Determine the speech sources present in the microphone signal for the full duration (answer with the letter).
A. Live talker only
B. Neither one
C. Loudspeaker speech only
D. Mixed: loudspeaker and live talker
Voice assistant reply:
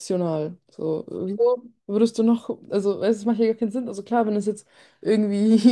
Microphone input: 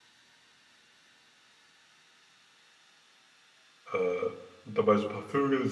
A